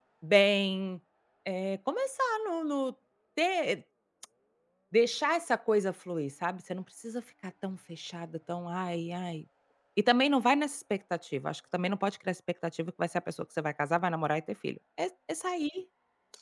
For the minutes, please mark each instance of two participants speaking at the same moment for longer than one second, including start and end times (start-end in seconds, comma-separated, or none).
none